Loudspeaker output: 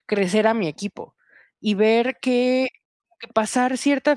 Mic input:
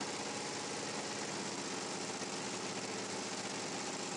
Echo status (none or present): none